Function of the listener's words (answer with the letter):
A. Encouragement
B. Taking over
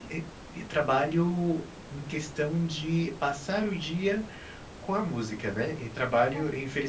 A